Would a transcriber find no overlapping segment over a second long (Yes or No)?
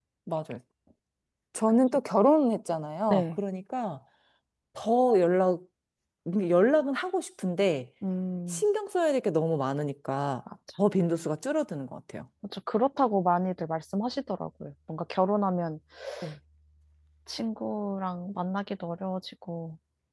Yes